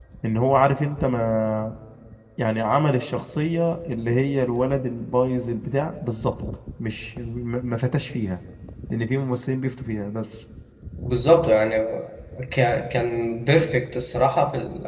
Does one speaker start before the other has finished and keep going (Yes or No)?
No